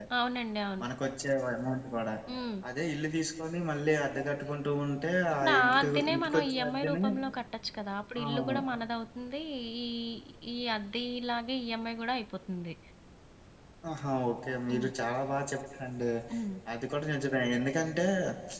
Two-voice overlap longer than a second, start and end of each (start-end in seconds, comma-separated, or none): 5.4-7.0